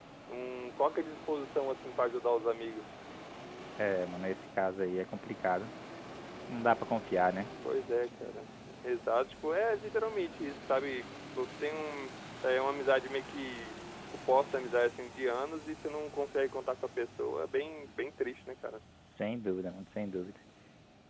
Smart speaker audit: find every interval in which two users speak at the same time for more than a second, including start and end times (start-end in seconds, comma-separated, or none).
none